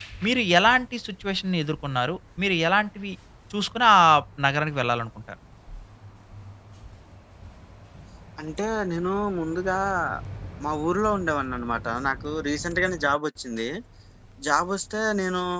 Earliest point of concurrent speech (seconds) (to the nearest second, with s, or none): none